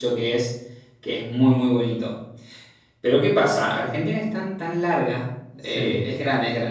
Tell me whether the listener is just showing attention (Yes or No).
Yes